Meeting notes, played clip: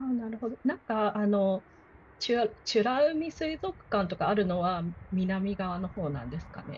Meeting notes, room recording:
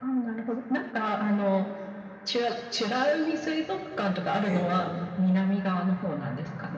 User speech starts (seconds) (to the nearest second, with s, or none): 4 s